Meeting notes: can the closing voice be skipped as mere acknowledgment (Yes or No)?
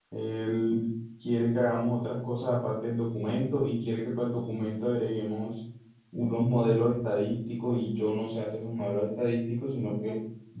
Yes